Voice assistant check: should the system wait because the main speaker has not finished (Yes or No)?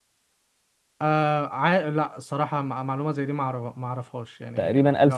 No